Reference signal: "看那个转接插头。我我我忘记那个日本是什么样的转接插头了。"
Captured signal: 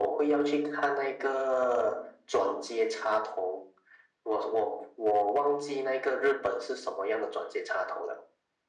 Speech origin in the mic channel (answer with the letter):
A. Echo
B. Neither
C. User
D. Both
A